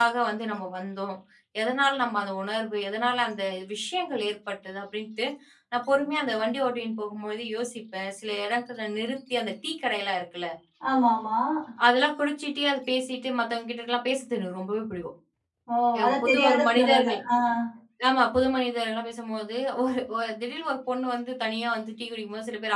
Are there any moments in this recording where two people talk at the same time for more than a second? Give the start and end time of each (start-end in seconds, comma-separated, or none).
16.0-17.2